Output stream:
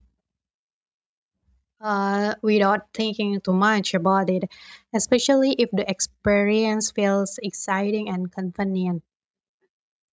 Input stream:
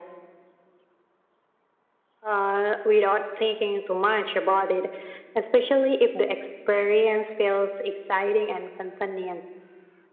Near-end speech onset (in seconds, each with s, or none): none